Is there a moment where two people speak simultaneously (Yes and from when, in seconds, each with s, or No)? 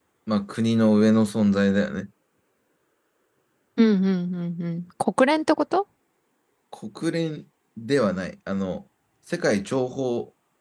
No